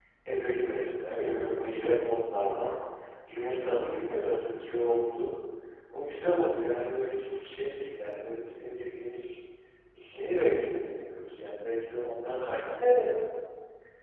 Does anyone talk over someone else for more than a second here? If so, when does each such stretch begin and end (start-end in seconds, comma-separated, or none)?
none